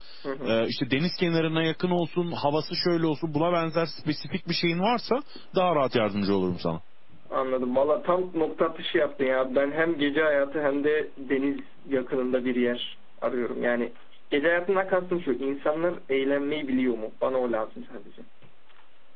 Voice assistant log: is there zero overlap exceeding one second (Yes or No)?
Yes